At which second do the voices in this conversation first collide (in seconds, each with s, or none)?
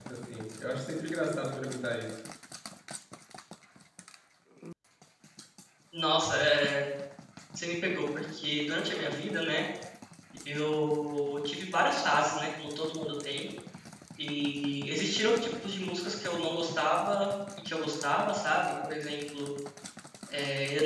none